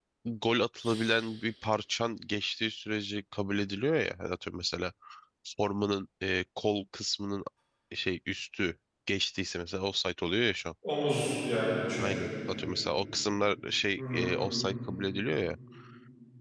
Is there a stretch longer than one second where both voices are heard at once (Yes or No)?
No